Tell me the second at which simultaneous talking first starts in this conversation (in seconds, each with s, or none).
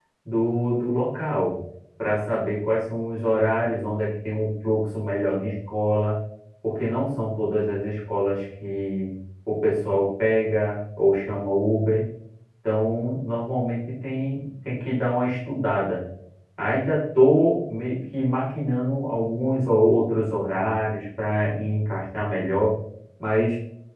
none